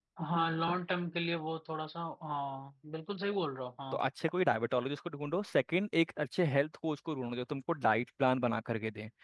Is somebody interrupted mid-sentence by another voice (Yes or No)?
No